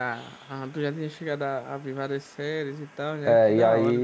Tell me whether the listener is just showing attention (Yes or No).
No